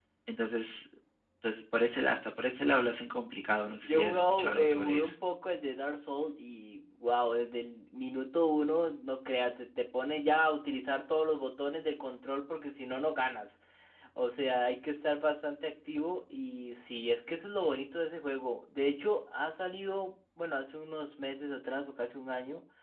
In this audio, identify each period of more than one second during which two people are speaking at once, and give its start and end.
3.9-5.1

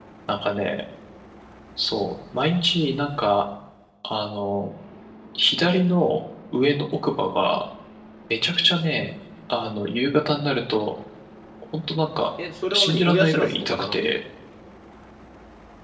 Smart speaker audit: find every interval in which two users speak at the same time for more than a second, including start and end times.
12.7-14.2

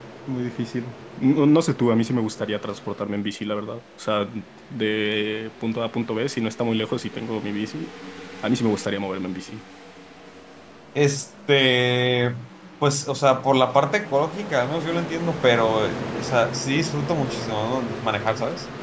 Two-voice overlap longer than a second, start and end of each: none

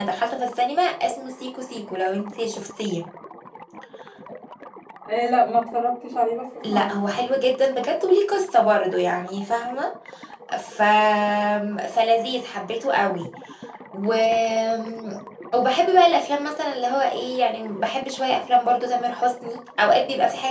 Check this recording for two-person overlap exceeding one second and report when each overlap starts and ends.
none

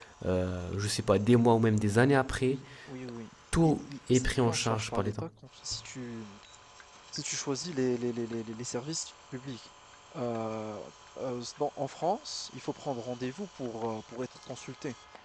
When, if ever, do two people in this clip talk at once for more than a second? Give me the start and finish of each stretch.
3.6-5.2

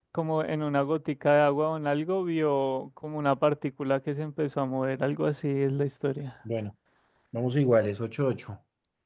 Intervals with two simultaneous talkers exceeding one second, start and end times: none

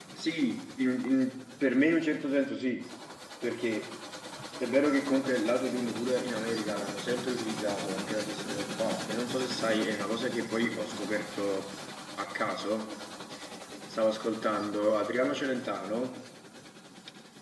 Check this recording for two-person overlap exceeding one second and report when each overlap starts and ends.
none

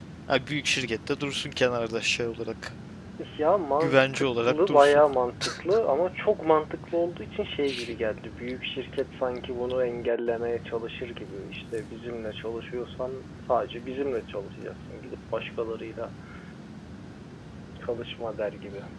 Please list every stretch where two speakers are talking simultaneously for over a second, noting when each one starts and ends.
3.8-5.0

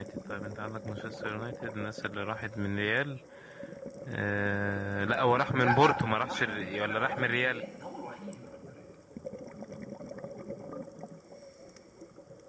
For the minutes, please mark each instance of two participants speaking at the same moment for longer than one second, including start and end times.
5.6-7.6

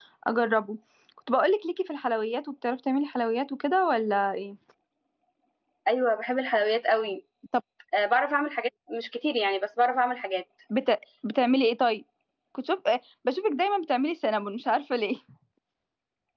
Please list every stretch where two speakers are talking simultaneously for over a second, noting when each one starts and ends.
none

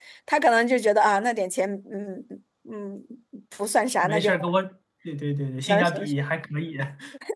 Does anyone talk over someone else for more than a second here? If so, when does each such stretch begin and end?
none

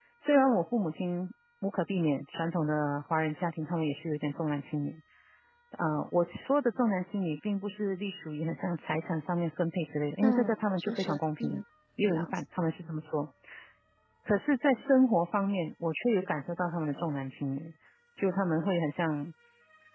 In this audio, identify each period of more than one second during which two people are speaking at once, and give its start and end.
10.2-11.6

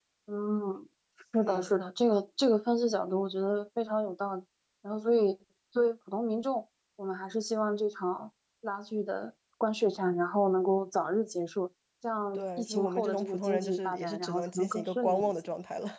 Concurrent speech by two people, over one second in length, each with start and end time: 12.3-15.3

